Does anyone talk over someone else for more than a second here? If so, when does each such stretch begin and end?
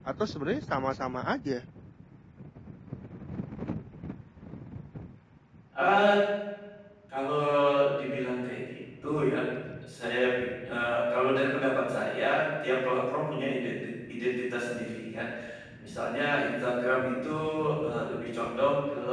none

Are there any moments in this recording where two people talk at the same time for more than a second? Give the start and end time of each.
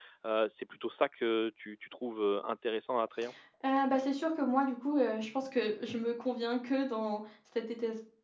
none

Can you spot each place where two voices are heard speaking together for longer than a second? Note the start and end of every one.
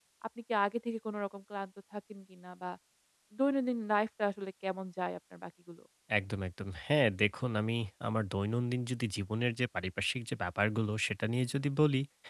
none

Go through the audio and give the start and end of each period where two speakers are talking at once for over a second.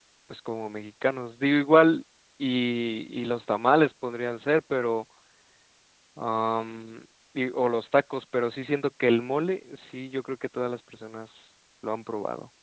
none

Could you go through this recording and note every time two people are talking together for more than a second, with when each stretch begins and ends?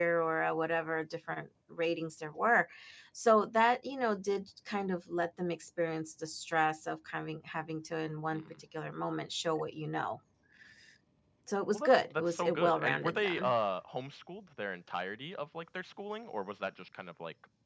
11.7-13.5

